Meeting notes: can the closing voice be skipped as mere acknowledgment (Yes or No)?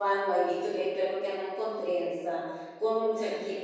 Yes